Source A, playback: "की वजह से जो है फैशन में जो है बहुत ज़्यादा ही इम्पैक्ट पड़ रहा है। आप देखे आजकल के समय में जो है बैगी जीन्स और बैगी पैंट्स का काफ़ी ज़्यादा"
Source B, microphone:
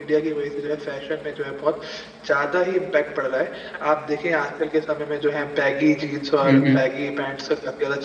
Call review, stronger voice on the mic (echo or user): user